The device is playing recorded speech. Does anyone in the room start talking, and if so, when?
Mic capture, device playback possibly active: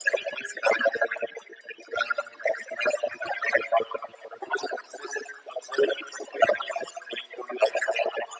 none

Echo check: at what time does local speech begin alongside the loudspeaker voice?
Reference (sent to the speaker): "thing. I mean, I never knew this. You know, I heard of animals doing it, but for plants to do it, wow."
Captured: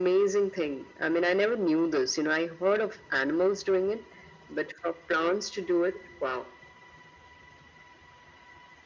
none

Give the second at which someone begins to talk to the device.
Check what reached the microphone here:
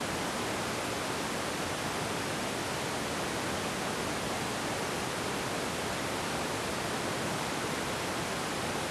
none

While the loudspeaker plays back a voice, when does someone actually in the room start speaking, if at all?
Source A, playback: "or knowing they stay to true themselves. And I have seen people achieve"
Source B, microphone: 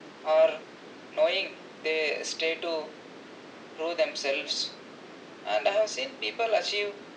none

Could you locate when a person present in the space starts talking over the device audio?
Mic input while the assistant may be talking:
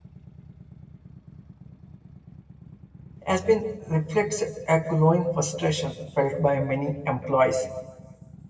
3.3 s

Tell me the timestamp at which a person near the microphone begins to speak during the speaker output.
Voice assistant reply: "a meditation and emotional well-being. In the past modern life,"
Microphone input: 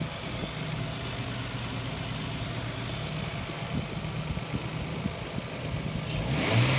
none

